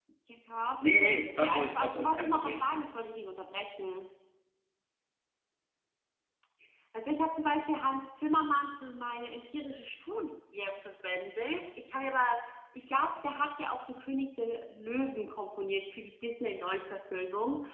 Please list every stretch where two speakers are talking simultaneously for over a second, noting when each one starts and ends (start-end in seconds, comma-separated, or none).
0.8-2.5